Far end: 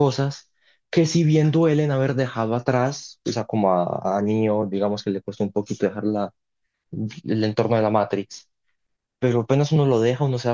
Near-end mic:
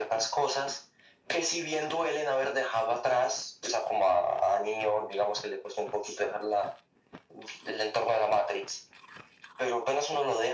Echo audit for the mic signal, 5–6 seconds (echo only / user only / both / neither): echo only